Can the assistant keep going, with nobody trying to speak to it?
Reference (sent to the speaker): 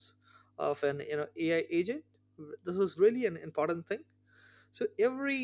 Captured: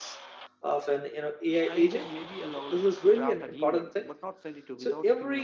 No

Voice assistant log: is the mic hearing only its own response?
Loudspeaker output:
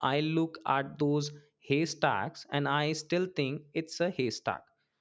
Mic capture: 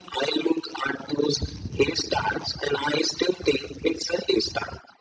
Yes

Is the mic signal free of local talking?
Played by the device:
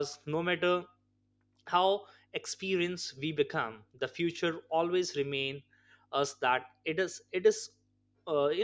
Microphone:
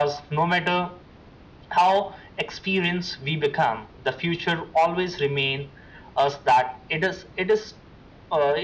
Yes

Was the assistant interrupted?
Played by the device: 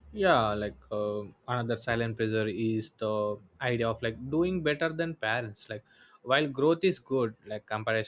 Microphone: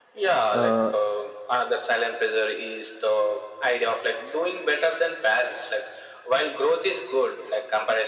Yes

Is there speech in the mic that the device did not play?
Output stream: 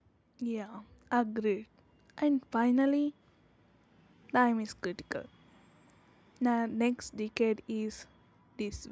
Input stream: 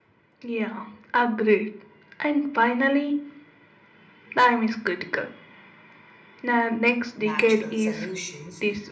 Yes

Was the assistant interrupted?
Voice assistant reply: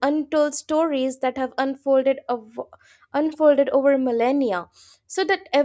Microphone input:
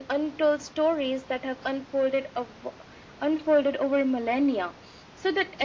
No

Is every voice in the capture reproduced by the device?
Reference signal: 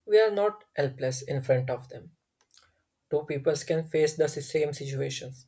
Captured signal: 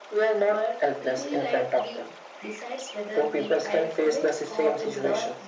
No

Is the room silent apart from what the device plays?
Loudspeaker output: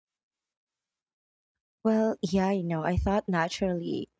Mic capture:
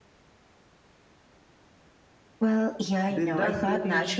No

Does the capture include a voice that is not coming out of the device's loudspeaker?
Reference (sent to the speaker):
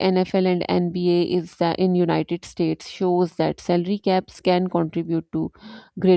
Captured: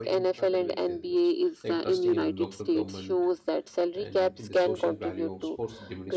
Yes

